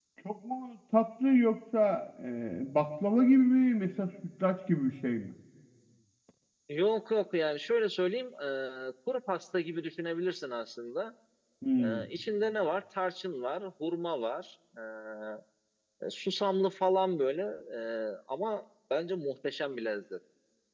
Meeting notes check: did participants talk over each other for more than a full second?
No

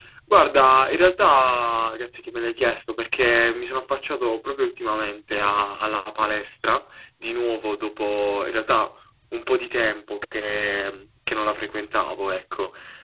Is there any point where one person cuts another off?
No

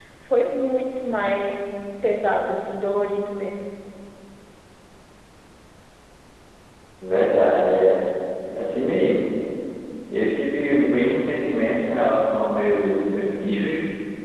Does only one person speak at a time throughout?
Yes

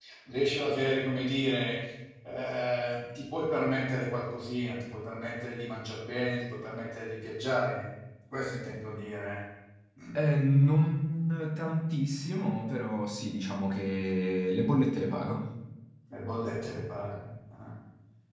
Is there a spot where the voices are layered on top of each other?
No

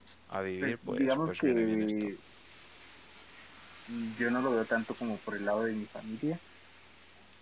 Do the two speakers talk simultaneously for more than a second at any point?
Yes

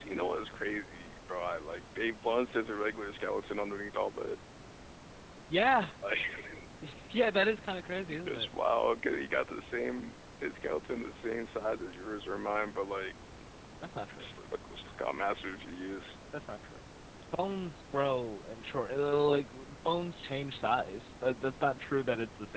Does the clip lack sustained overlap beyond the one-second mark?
Yes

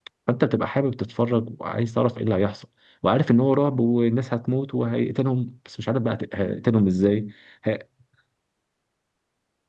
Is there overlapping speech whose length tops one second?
No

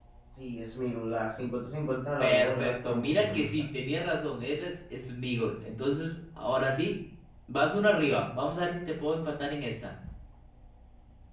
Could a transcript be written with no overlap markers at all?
No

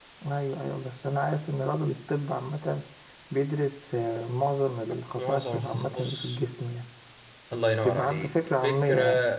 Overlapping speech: Yes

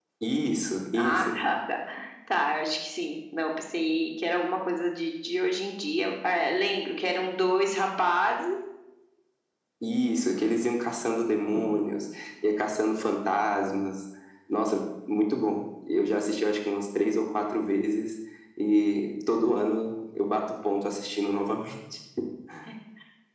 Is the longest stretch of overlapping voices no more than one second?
Yes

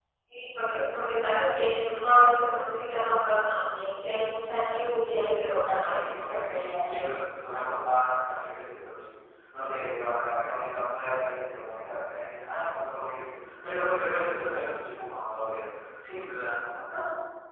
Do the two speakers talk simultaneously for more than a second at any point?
Yes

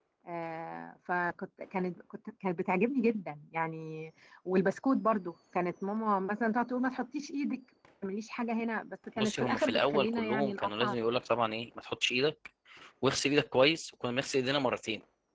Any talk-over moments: Yes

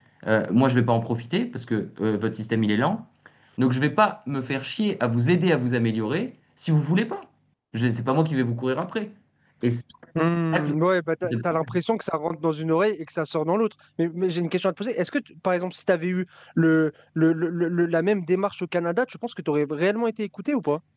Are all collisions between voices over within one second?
Yes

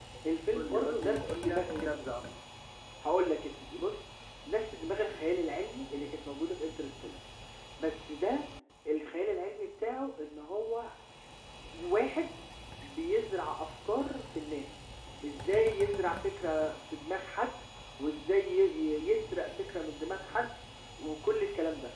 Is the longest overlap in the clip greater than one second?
Yes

